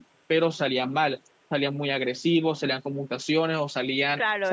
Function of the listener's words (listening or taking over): taking over